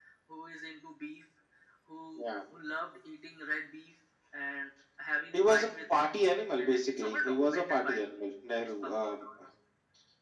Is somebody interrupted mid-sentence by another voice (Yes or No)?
Yes